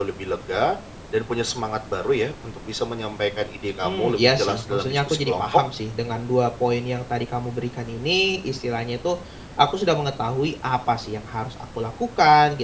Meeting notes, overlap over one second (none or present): present